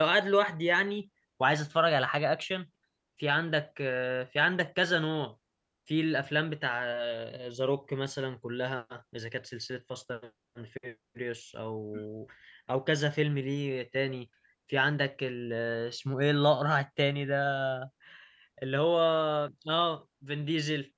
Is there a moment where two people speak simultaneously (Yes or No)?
No